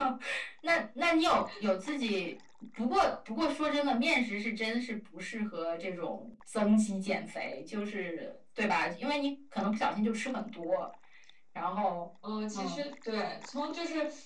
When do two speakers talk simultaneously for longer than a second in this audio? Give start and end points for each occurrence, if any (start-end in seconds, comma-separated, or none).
none